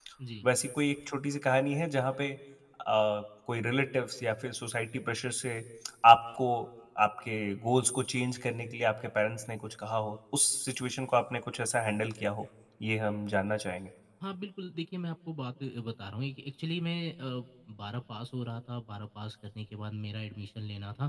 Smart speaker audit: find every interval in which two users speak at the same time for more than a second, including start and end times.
none

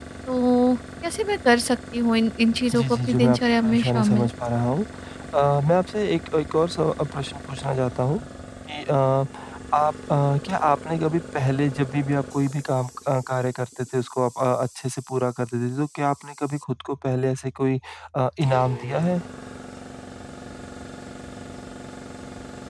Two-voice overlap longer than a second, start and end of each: 2.8-4.3

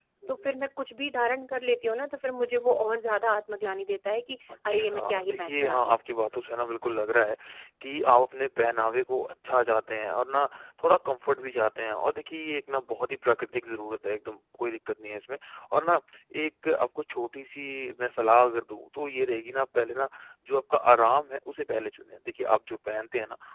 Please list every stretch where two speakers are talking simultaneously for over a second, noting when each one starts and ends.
4.7-6.0

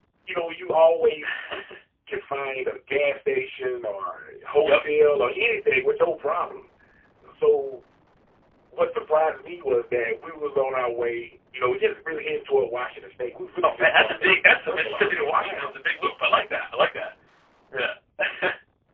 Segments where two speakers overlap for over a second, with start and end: 13.6-15.7

